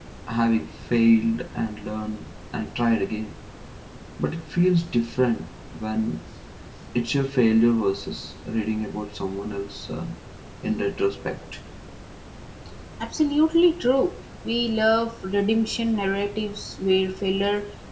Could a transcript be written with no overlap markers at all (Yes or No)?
Yes